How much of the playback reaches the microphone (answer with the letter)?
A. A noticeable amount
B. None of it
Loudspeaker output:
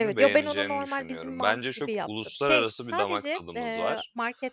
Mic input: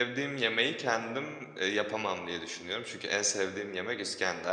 B